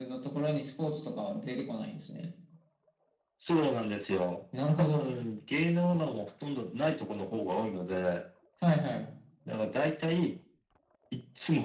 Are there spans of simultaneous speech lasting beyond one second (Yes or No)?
No